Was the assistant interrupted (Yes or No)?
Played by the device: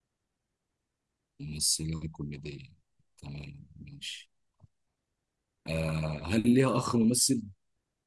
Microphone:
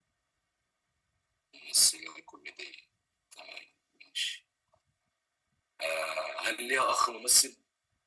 No